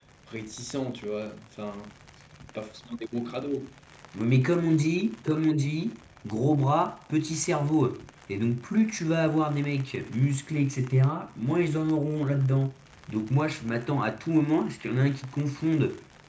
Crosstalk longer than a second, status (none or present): none